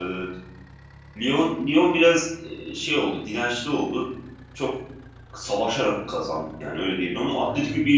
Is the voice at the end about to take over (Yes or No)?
No